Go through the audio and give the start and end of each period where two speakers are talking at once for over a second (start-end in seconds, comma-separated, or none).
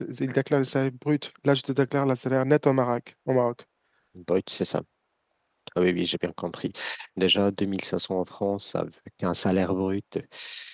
none